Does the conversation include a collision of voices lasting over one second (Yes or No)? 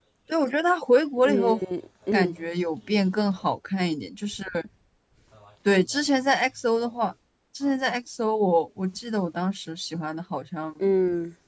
No